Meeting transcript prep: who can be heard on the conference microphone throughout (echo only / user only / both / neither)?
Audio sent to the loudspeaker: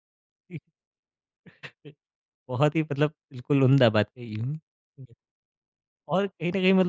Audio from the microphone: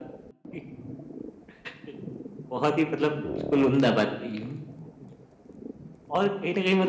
echo only